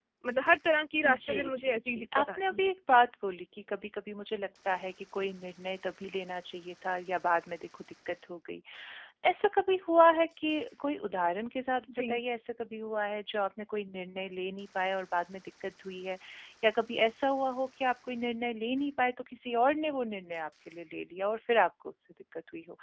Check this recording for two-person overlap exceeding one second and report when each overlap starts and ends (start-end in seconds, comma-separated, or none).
1.1-2.7